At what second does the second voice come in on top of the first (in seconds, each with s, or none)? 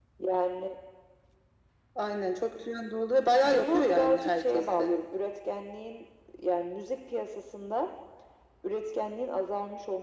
3.4 s